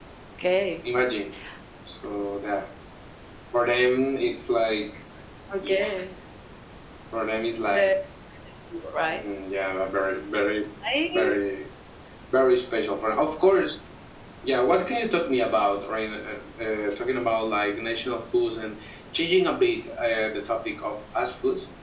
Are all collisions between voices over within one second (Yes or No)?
Yes